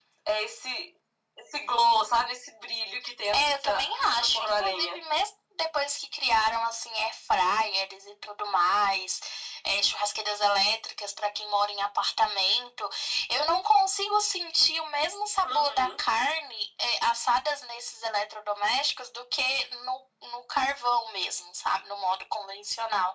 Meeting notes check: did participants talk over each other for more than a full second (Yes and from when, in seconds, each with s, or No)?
Yes, from 3.3 s